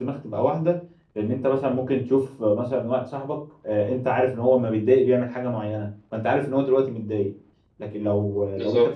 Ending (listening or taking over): listening